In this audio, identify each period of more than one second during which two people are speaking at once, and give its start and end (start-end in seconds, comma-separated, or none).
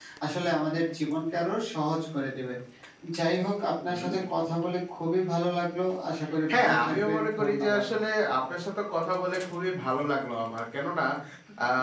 6.5-7.8